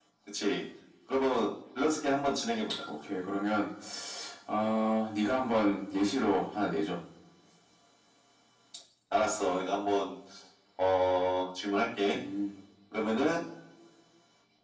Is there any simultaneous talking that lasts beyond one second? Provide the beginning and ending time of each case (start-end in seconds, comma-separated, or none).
none